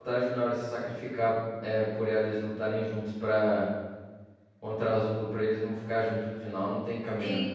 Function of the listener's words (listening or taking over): taking over